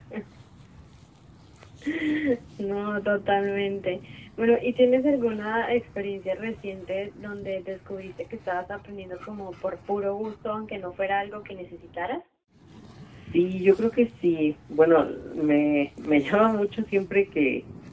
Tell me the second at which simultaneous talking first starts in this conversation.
none

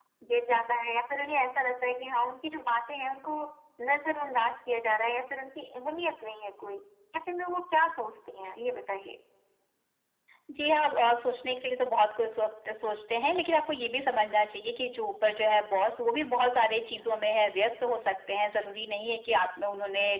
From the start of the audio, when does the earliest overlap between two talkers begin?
none

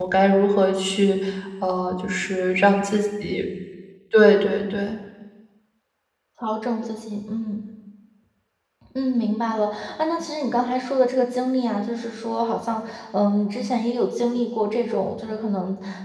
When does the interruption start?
none

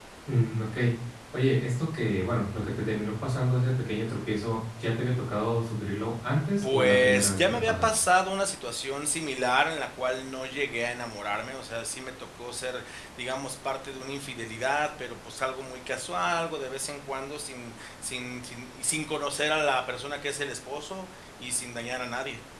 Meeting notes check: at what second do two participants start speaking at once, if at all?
6.6 s

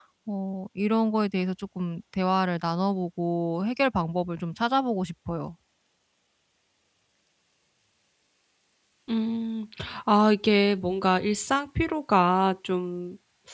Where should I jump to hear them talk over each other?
none

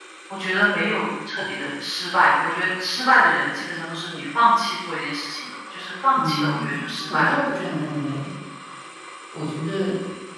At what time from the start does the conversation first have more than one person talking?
6.2 s

